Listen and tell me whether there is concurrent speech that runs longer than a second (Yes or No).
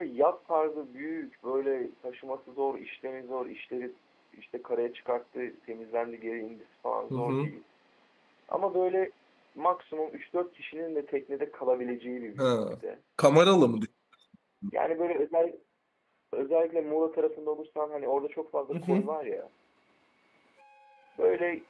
No